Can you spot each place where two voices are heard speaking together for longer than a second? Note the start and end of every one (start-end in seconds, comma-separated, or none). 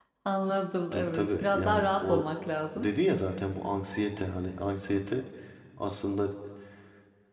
0.9-2.2